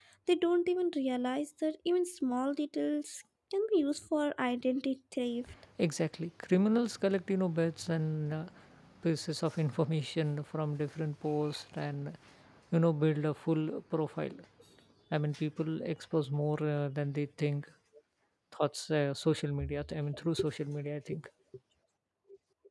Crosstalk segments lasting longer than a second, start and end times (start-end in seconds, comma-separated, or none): none